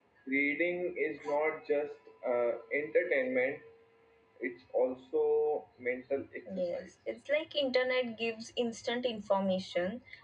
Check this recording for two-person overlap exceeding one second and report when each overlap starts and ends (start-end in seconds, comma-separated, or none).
none